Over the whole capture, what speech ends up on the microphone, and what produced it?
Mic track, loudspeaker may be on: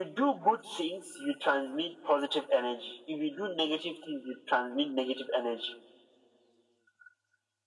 echo only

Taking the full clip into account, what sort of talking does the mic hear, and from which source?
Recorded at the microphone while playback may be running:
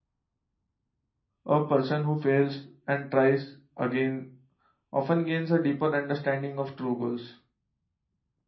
user only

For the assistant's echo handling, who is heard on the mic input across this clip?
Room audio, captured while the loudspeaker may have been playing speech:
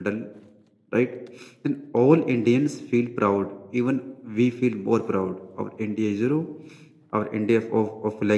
user only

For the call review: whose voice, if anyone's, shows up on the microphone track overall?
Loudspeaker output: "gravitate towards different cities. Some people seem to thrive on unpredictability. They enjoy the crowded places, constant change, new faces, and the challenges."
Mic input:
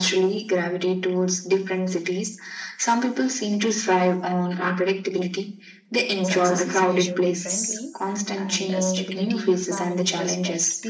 both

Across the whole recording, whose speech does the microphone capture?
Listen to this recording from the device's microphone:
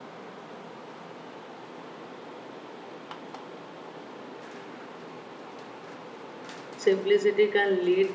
user only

